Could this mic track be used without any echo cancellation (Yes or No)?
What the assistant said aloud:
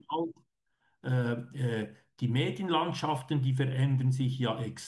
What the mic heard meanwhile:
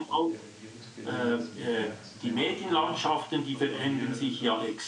No